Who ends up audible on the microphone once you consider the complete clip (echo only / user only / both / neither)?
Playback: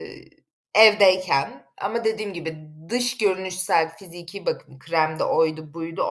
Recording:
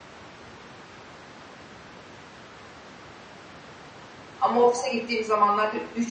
user only